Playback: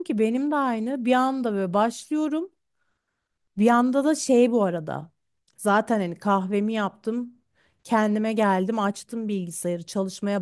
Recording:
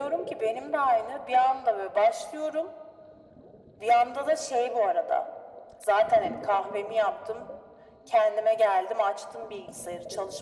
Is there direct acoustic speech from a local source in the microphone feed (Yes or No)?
No